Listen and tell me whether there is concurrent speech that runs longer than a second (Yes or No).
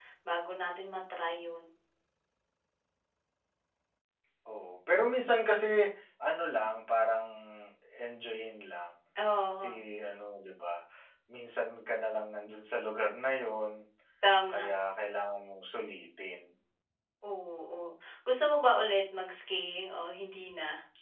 No